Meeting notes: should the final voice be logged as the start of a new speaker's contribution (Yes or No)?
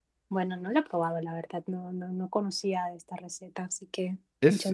Yes